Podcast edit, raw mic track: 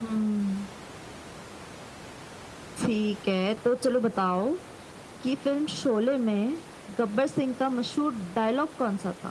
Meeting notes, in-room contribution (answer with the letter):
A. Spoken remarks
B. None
B